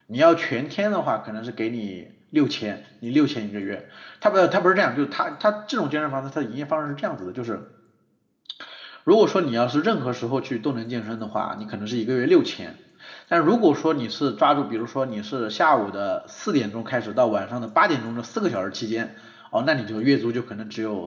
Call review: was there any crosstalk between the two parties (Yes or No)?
No